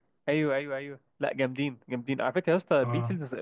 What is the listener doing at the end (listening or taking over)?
listening